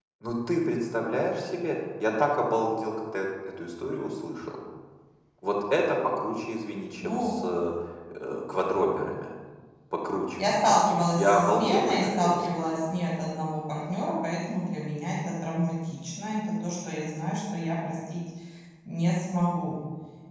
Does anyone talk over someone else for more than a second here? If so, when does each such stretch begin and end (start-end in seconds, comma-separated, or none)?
10.4-12.8